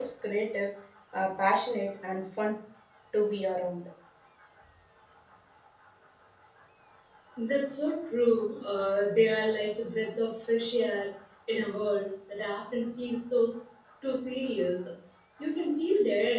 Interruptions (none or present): none